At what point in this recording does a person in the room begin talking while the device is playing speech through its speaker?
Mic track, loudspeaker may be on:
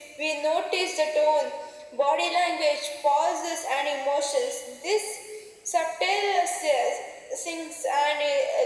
none

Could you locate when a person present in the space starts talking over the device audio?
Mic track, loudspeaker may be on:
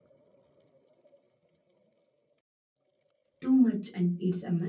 3.4 s

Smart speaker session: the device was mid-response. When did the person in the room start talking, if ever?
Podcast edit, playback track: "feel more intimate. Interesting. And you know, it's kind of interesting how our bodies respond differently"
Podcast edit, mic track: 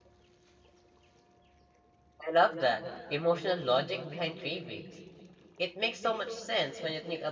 2.2 s

